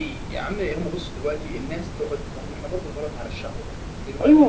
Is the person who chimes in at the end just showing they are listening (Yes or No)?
No